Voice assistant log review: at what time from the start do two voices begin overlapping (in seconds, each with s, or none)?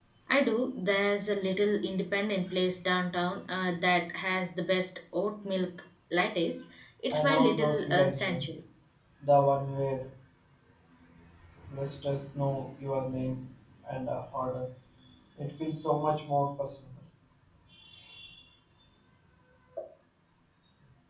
7.1 s